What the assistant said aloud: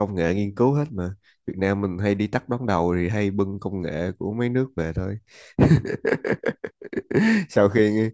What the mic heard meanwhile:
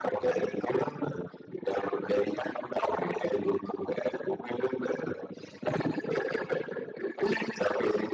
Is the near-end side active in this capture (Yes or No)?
No